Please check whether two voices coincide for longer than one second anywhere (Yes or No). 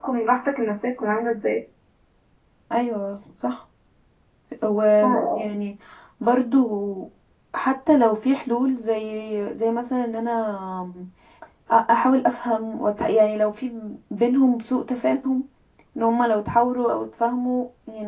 No